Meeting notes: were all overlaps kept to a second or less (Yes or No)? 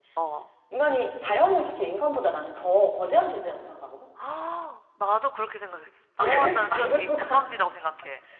No